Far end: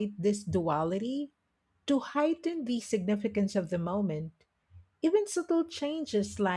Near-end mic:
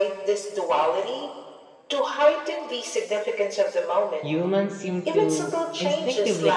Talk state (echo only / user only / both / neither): both